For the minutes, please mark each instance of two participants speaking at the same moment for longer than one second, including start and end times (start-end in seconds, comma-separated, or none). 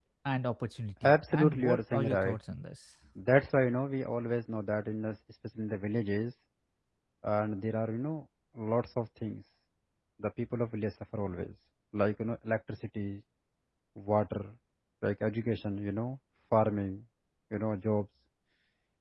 1.0-2.4